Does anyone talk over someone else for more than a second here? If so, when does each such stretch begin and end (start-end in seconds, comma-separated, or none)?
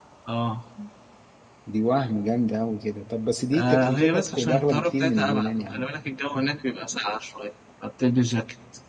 3.5-5.8